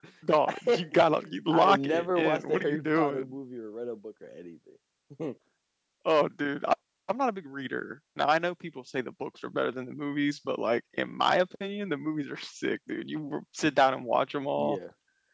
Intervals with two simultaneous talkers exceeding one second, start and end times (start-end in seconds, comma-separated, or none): 1.5-3.3